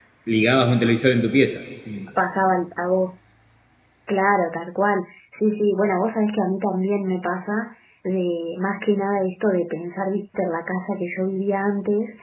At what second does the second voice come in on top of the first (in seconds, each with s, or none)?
none